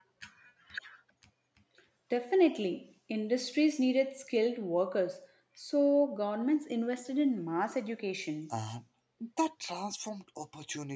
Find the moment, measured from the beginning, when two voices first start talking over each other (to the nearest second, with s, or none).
none